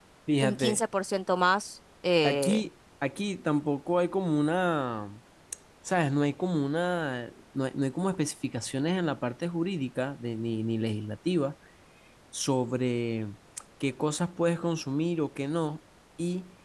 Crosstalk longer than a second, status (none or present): none